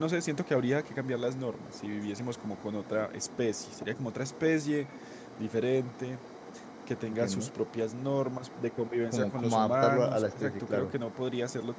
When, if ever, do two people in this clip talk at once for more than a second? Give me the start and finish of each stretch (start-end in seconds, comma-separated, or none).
9.1-10.9